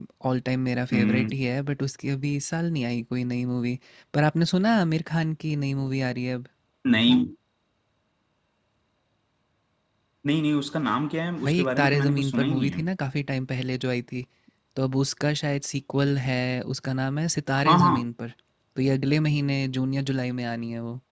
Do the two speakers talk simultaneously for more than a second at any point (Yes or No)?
Yes